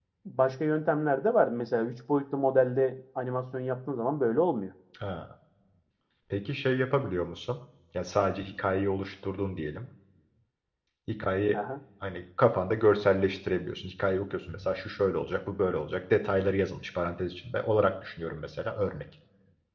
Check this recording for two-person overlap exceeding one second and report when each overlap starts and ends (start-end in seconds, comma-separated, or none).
none